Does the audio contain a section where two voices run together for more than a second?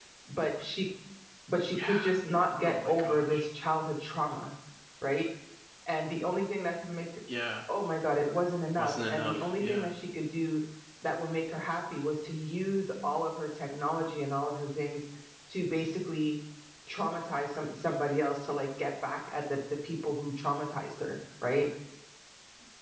Yes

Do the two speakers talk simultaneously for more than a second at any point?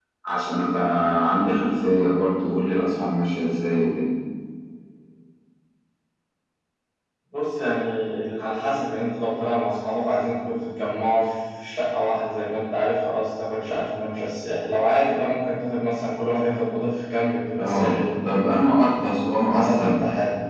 No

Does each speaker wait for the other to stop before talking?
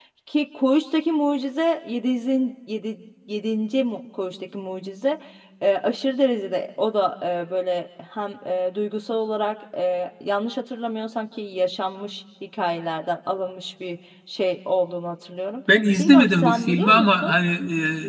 No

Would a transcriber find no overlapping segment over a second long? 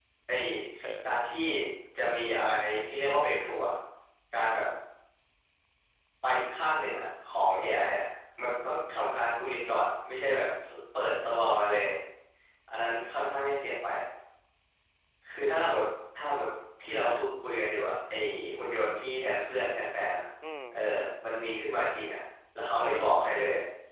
Yes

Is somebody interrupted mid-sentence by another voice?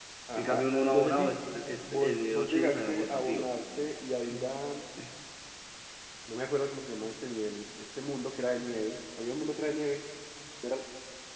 Yes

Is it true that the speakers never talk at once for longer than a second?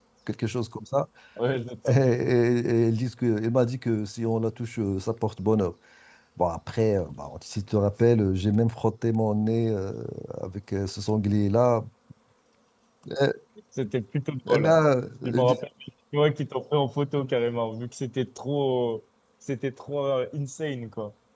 Yes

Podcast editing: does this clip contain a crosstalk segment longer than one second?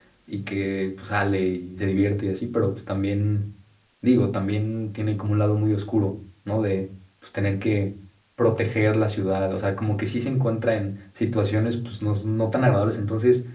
No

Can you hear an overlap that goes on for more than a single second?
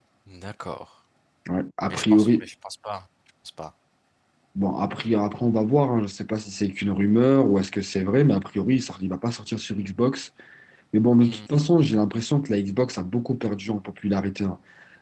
No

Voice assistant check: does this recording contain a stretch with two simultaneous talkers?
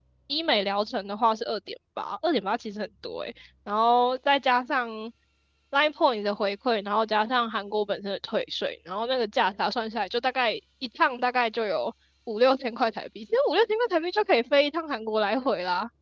No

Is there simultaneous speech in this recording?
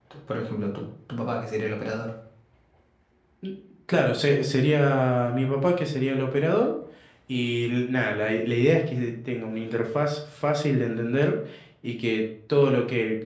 No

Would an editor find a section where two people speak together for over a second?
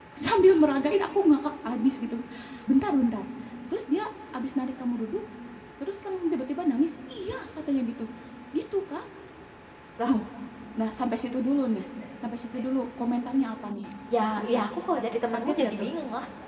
No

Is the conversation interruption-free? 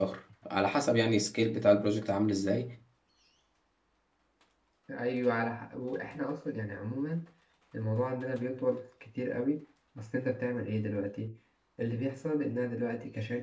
Yes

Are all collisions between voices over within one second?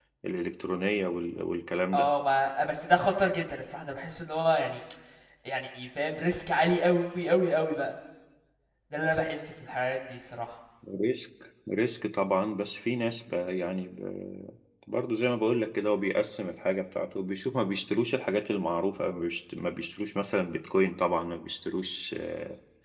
Yes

